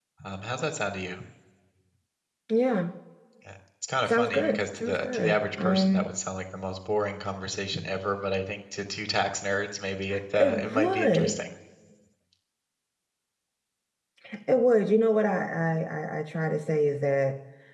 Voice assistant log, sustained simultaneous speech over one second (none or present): present